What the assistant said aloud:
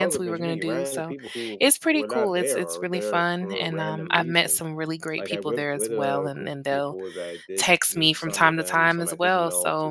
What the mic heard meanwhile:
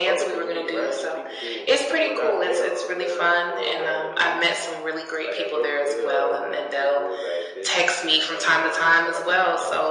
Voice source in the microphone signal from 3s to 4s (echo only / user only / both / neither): echo only